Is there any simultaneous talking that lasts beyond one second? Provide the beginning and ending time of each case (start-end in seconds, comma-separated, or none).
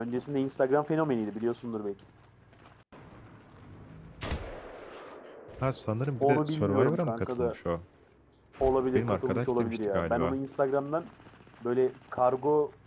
6.3-7.5, 8.9-10.4